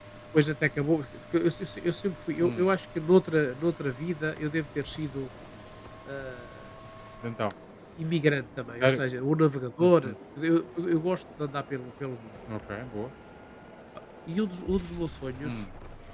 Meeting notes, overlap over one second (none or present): none